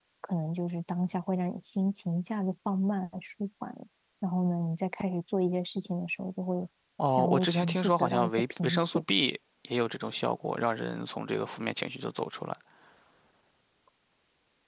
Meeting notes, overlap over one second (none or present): present